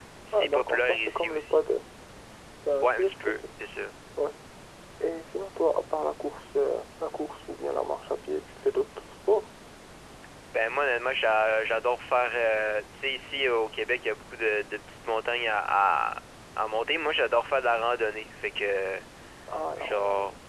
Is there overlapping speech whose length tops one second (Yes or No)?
Yes